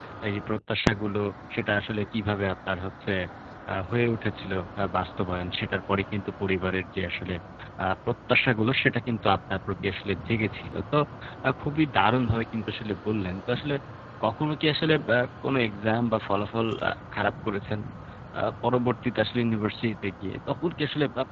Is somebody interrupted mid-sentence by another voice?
No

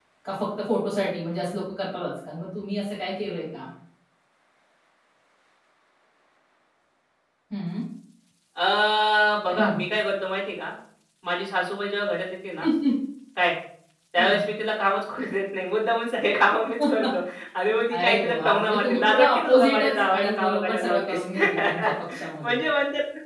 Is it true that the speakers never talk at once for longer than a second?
No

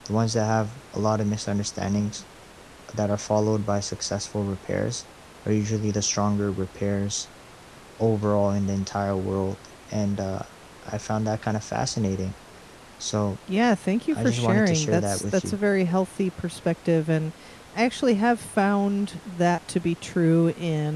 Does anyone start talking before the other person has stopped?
Yes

